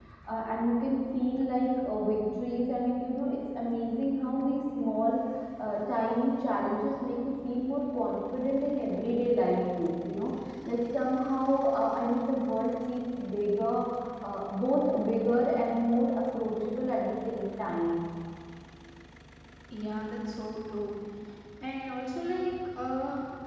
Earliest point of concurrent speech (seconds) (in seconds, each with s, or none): none